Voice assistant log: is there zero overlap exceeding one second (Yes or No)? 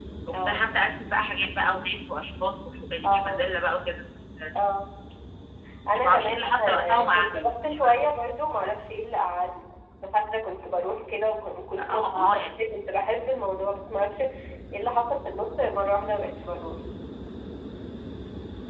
No